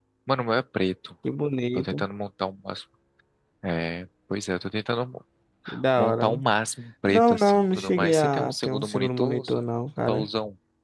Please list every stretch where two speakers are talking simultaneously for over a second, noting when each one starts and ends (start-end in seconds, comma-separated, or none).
7.0-9.6